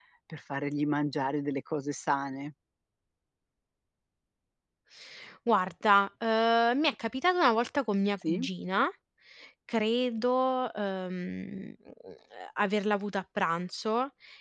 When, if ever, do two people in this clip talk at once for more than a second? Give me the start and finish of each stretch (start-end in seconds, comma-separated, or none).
none